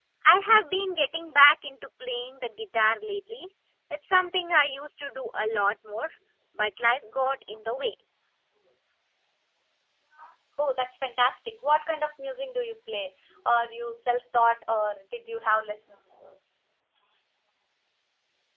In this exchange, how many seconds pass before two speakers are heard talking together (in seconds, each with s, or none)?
none